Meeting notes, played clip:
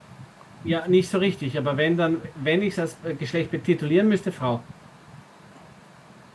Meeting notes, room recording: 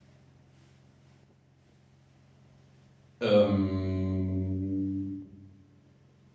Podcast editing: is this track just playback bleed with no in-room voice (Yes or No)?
No